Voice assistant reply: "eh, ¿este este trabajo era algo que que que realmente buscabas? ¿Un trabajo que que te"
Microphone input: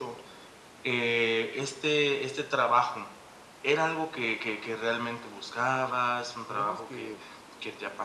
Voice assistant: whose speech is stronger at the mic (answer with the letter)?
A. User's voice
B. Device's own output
B